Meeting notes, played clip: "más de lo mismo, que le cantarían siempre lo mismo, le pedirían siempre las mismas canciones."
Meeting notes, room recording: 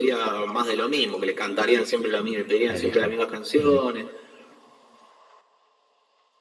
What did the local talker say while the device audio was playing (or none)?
elige. Ujú,